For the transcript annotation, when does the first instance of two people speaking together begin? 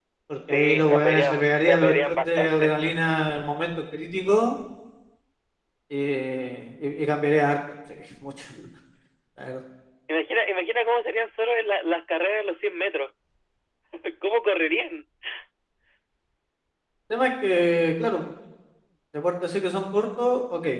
0.5 s

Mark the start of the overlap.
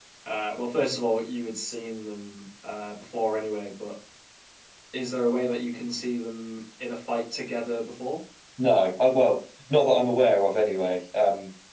none

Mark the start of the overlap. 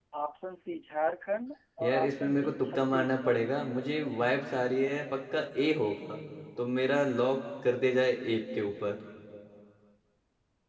1.8 s

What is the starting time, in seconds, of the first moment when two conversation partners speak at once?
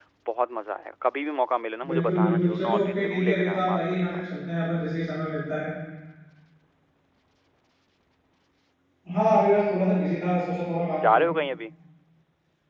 1.9 s

